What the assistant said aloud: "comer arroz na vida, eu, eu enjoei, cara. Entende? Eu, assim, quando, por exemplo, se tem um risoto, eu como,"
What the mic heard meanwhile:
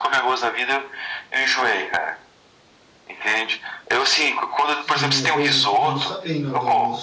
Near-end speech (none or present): present